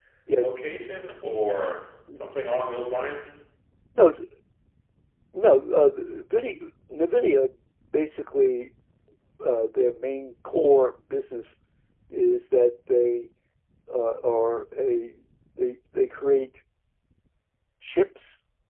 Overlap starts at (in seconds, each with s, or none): none